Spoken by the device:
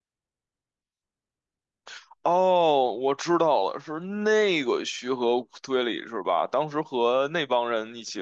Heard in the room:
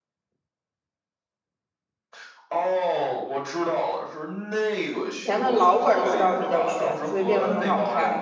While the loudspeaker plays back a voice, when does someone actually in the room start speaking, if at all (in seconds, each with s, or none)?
5.0 s